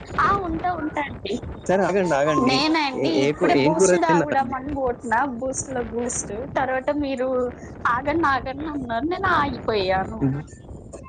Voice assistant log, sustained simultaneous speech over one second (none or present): present